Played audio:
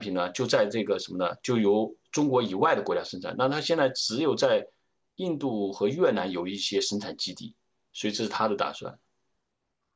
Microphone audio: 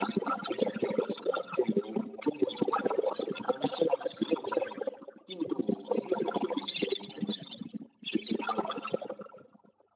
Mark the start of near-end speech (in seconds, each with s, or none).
none